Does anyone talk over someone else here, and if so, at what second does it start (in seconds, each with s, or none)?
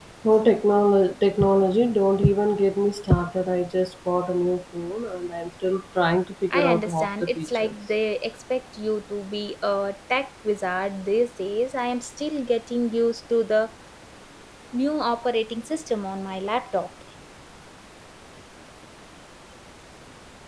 6.5 s